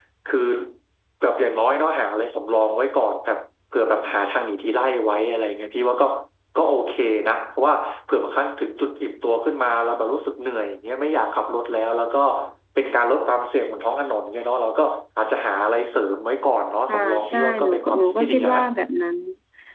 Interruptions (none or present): present